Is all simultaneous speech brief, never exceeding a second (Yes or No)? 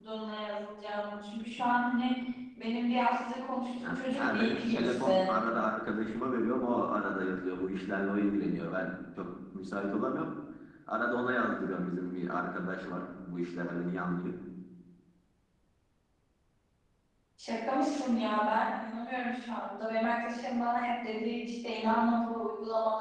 No